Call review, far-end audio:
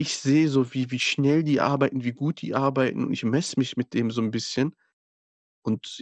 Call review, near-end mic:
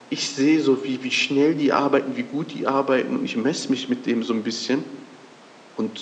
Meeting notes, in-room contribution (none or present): none